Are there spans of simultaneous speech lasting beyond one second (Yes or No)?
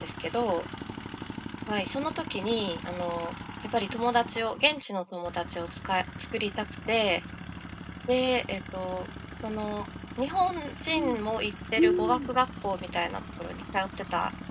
Yes